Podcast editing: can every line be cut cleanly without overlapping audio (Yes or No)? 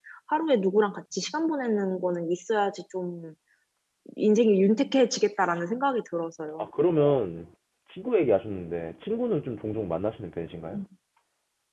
Yes